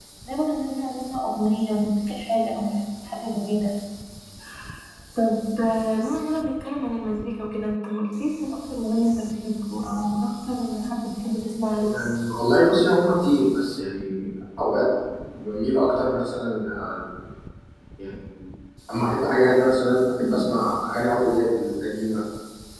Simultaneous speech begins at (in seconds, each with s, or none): none